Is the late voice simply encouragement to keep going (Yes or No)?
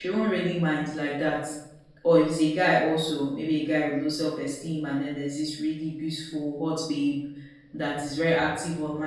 Yes